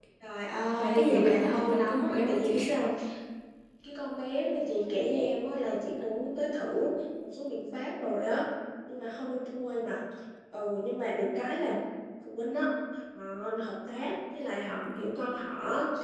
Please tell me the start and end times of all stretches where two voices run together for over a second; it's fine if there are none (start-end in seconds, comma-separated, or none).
0.8-2.5